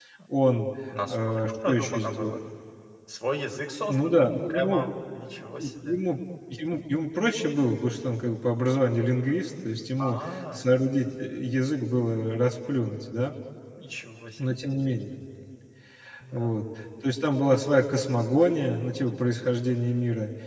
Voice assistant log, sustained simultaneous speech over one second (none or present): present